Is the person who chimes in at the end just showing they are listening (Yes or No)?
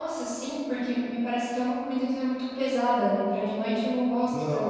Yes